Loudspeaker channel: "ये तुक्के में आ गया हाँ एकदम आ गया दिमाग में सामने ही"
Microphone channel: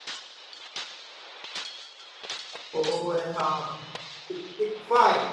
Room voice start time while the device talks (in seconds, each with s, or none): 2.8 s